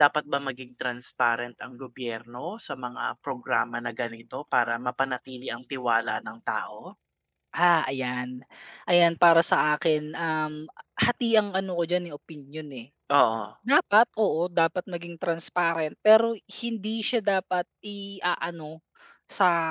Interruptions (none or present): none